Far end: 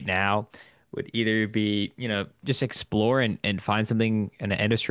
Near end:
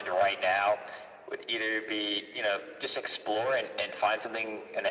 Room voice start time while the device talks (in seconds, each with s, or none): none